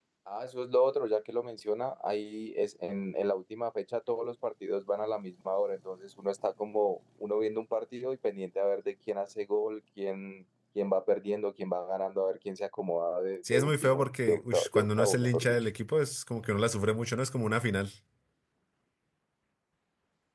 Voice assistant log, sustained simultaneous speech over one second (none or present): present